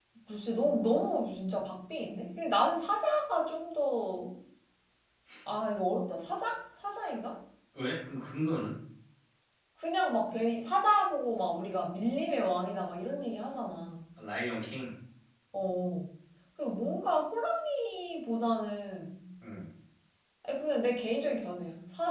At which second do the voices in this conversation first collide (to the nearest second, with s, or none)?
none